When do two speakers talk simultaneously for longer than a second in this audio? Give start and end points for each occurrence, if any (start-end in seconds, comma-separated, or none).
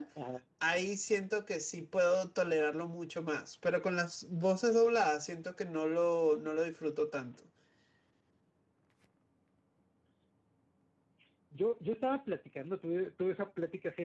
none